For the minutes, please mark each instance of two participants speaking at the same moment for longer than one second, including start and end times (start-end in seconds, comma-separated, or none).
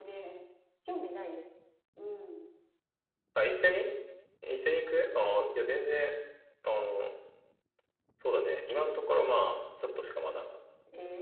none